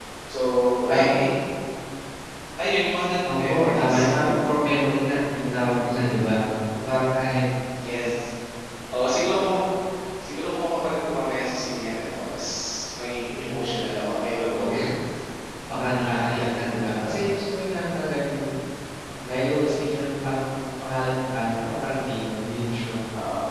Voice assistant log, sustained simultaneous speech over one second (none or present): present